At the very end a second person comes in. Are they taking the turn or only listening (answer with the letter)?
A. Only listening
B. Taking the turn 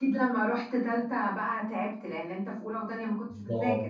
B